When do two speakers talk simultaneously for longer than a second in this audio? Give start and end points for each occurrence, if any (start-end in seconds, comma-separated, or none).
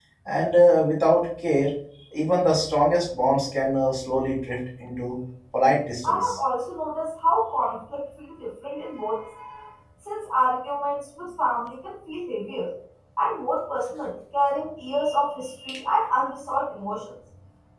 none